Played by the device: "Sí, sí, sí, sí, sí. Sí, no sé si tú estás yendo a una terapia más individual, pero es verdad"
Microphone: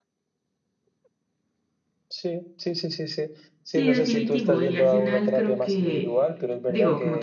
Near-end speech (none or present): present